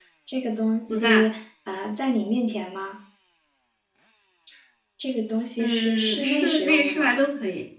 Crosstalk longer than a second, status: present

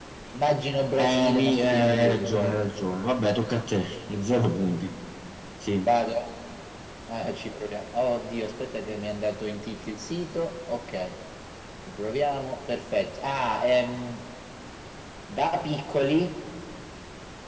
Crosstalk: present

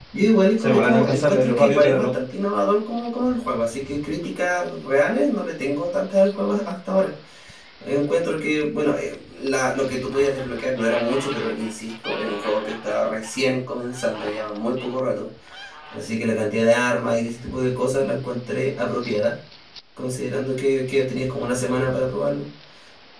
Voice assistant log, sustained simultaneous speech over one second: present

